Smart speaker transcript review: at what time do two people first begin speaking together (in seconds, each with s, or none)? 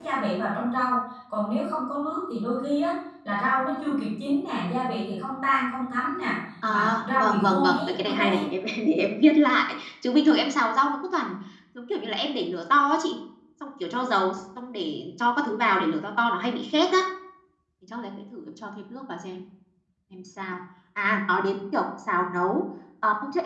6.6 s